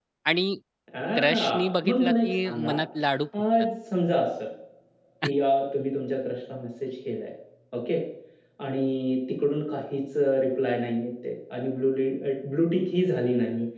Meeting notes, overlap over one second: present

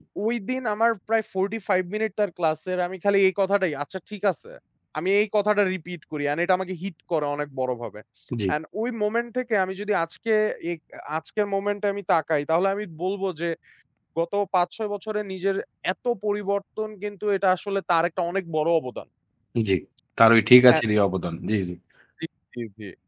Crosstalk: none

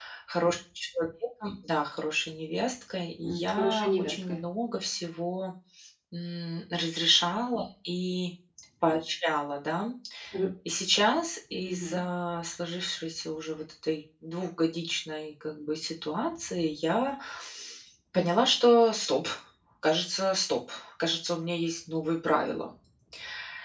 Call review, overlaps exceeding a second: present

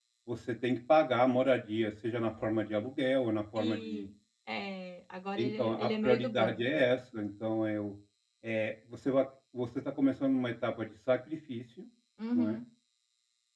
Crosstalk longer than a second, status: present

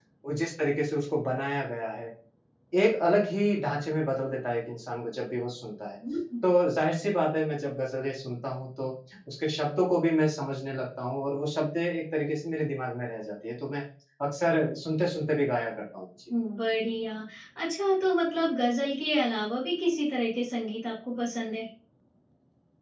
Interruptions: none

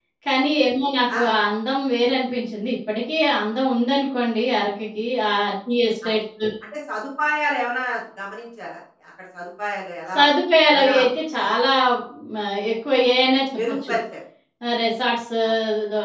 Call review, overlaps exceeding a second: none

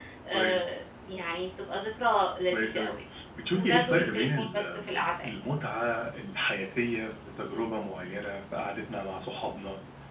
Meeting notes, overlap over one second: present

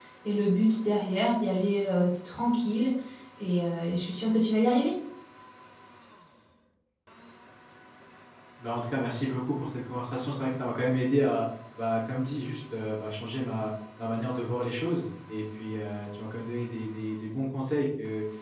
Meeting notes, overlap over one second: none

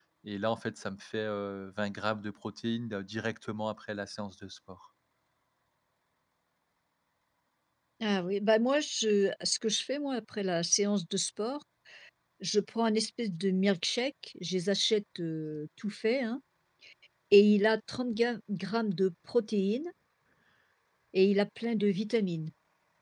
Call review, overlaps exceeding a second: none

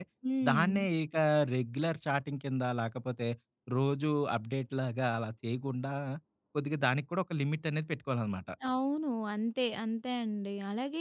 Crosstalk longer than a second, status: none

